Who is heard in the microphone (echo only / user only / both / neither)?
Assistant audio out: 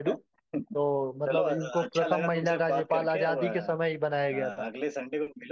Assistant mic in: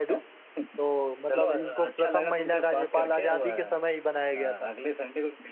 echo only